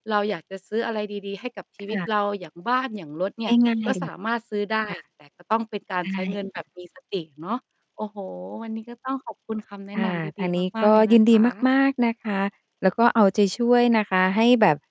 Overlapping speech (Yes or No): Yes